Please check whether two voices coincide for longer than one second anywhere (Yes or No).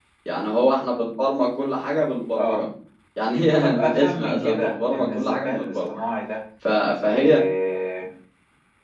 Yes